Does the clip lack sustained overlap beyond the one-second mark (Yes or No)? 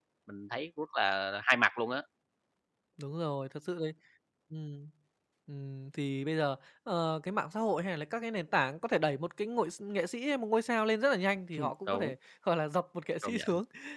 Yes